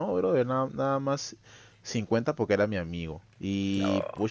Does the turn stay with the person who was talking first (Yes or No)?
Yes